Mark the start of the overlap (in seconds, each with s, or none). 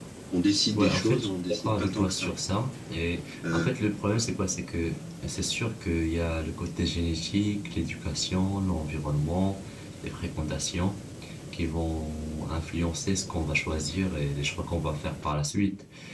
0.7 s